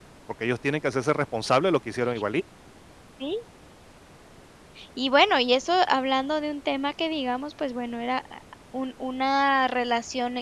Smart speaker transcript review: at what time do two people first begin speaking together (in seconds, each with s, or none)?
none